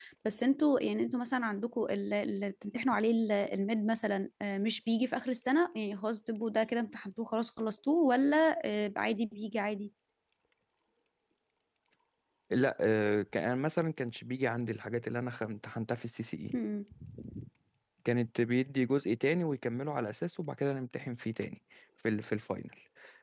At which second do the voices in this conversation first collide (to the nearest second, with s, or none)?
none